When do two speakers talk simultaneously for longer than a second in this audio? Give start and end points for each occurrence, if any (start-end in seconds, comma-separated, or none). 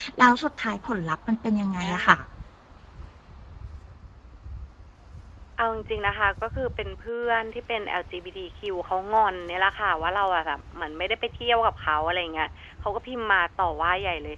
none